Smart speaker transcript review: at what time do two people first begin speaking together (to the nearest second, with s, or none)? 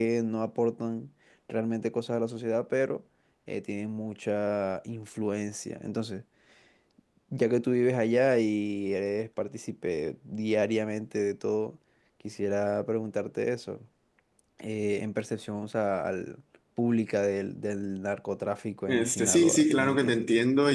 19 s